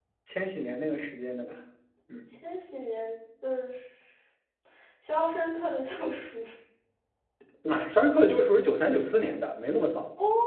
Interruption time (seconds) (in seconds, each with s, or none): none